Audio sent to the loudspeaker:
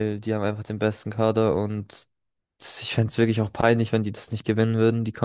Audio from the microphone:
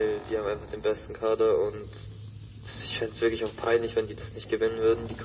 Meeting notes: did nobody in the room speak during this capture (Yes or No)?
Yes